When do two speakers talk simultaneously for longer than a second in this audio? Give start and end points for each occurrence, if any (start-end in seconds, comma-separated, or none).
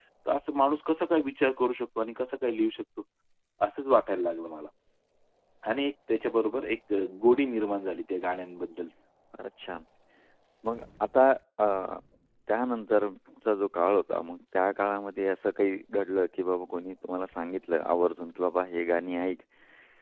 none